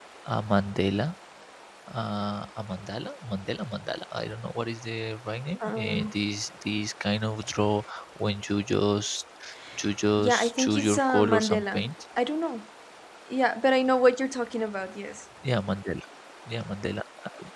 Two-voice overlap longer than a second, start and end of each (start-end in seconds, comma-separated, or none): 10.2-11.9